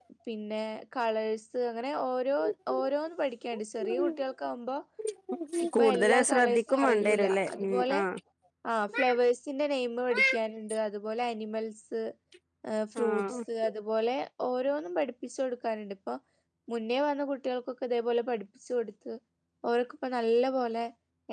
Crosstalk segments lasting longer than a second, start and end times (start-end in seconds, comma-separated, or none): 5.8-8.0